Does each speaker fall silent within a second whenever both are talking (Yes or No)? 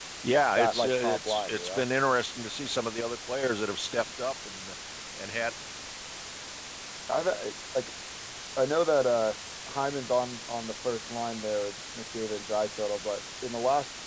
No